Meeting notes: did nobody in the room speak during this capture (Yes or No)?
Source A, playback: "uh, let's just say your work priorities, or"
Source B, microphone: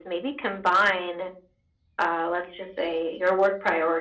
Yes